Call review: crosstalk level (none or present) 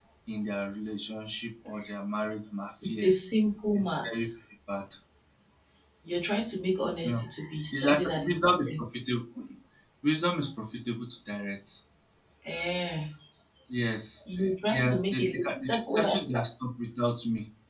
present